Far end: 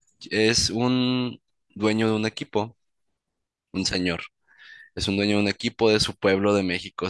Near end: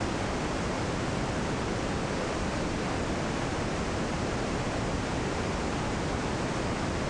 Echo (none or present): none